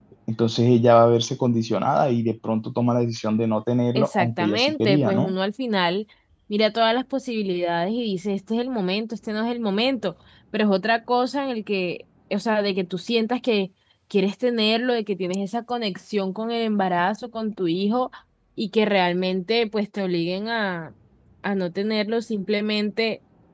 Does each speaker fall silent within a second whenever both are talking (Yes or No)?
No